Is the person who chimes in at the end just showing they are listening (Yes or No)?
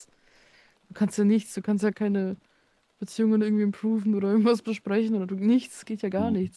No